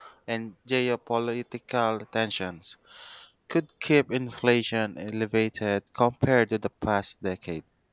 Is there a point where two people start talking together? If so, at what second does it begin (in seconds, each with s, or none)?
none